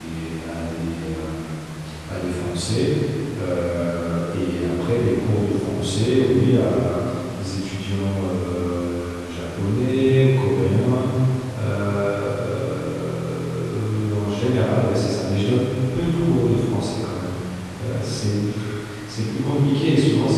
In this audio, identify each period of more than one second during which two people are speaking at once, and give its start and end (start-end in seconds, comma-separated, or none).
none